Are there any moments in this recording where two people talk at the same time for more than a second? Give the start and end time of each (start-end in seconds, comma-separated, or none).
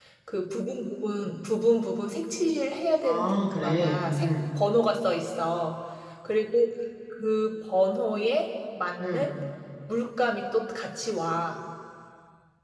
3.0-4.3